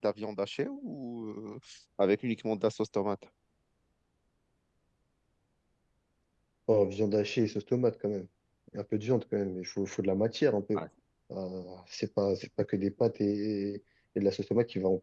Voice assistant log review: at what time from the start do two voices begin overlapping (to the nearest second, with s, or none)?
none